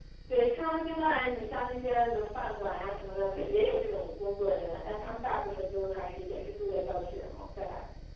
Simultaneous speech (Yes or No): No